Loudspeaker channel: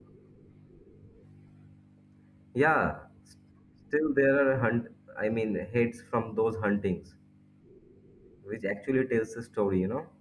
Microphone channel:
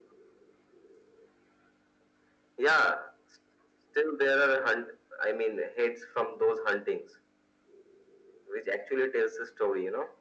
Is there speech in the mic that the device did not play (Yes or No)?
No